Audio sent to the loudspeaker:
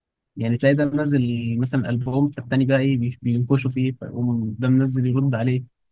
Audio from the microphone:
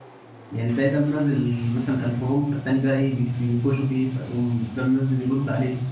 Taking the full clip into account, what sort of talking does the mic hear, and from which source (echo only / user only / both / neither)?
echo only